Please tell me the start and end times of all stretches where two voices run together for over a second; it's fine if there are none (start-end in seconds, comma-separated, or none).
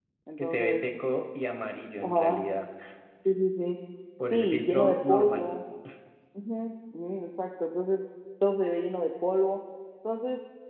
4.3-5.5